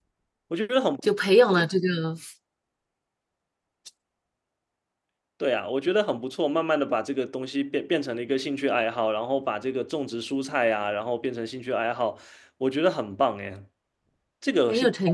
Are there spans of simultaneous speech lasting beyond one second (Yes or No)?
No